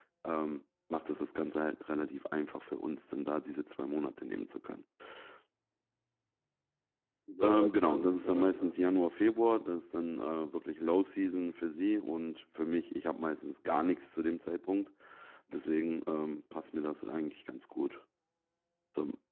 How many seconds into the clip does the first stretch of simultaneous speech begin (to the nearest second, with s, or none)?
7 s